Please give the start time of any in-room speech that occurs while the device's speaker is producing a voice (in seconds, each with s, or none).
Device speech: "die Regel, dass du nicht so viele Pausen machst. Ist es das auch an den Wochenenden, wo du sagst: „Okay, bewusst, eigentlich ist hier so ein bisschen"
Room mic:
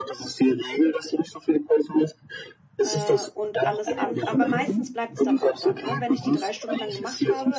2.8 s